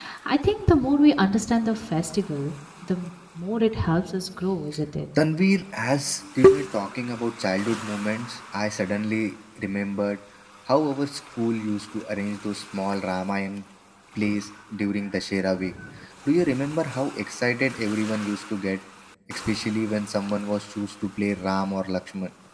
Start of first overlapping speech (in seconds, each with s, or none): none